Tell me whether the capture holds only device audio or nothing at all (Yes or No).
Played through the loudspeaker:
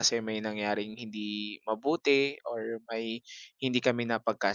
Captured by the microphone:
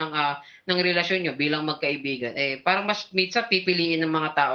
No